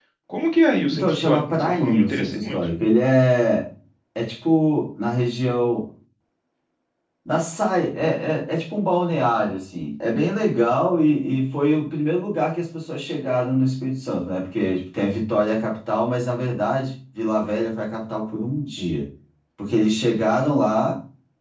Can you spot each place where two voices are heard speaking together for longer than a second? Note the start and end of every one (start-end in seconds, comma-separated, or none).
0.9-2.7